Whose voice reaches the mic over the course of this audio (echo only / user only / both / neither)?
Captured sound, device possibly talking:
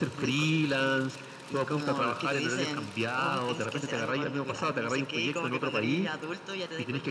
both